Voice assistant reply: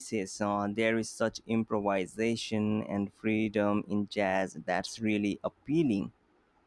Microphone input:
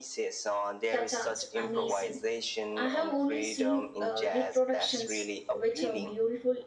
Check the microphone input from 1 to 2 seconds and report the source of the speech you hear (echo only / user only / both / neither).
both